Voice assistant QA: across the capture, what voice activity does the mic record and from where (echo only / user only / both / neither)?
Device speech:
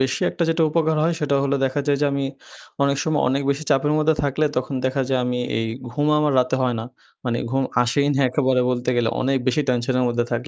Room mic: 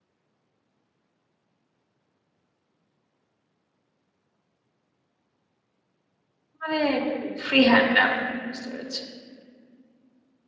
user only